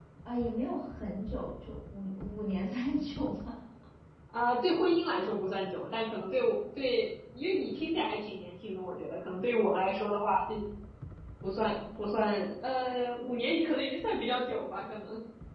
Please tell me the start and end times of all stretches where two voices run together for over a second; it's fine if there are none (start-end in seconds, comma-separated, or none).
none